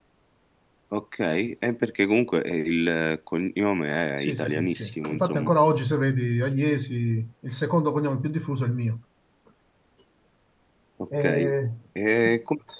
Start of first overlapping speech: 4.2 s

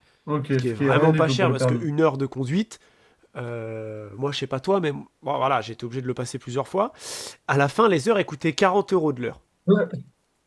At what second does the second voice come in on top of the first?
0.6 s

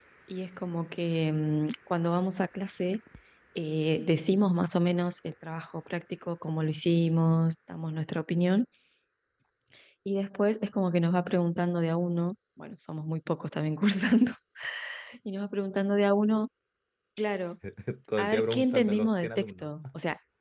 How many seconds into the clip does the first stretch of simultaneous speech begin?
18.2 s

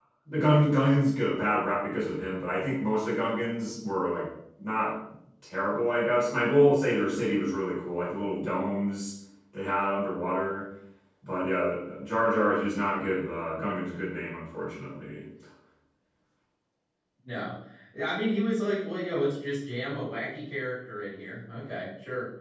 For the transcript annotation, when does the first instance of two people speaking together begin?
none

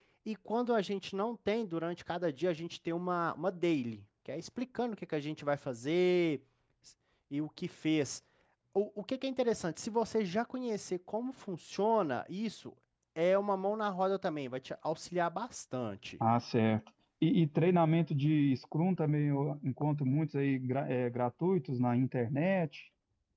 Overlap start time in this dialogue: none

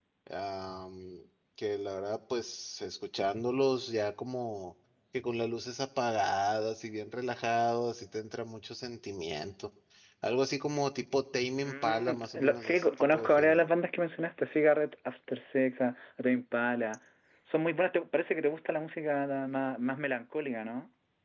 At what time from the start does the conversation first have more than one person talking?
11.6 s

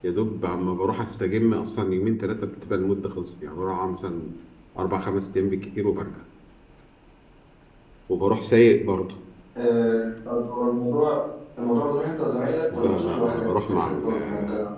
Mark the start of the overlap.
12.7 s

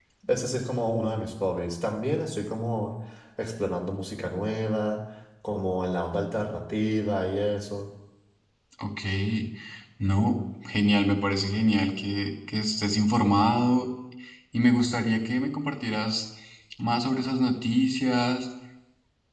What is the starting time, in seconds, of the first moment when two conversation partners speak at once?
none

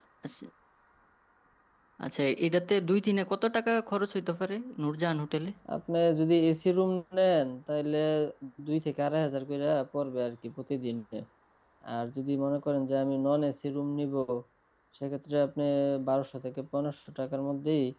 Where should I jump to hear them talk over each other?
none

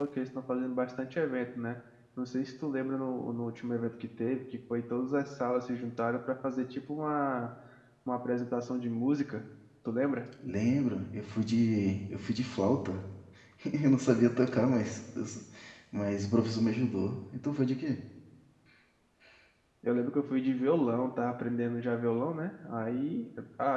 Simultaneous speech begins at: none

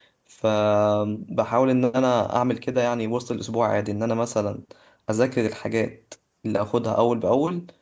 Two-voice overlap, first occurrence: none

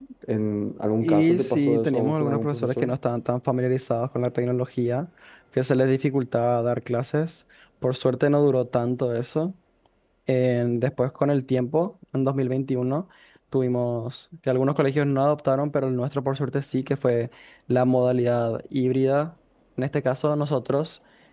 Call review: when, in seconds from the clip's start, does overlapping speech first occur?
1.0 s

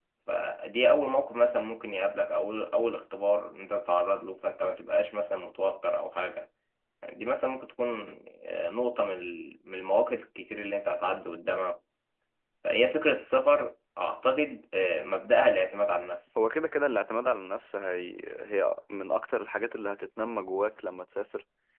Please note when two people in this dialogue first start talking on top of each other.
none

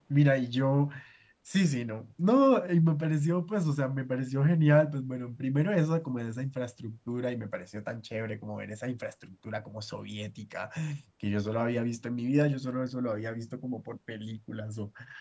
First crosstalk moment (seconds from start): none

